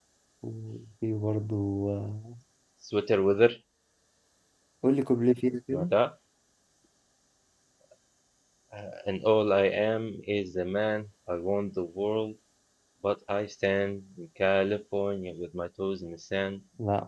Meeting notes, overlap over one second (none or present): none